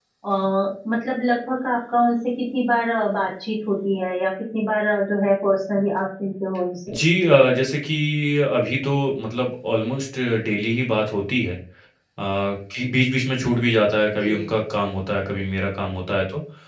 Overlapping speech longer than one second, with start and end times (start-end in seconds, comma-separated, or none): none